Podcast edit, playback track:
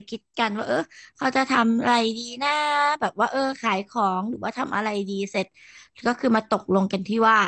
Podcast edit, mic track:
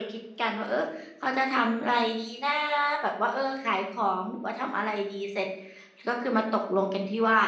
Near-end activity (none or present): none